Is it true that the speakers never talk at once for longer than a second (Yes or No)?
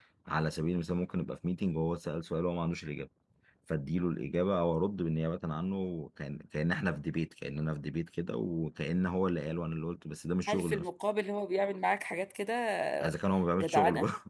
Yes